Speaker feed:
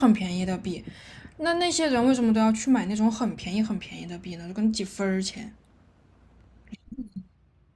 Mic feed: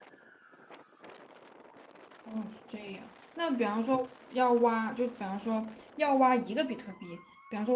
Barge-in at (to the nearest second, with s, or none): 2 s